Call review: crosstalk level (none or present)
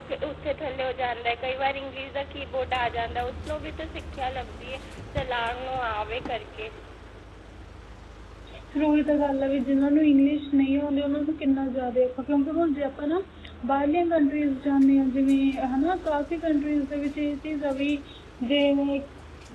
none